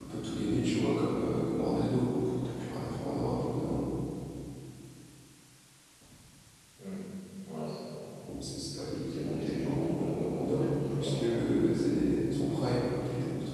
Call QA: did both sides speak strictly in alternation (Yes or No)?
No